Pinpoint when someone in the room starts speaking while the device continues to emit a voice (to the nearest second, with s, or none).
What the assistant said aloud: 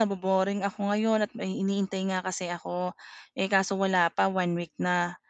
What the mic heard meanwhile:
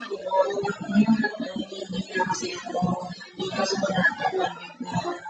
none